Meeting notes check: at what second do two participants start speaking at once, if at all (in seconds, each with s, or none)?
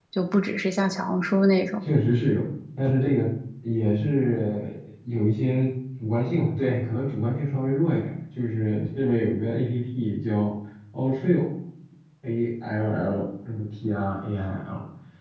none